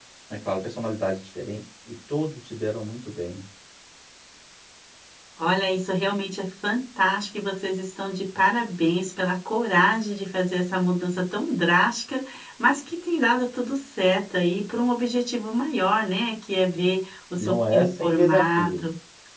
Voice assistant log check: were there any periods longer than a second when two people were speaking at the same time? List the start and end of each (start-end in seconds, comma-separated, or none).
17.4-18.8